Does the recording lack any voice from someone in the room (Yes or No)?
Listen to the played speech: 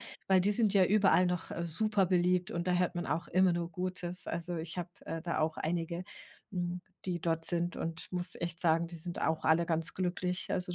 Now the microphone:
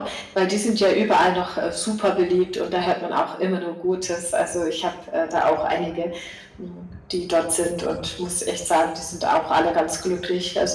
Yes